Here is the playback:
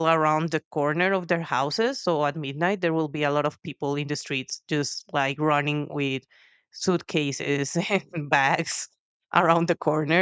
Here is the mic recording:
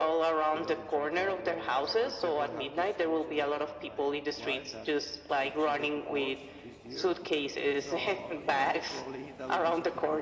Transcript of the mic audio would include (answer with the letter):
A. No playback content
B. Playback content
B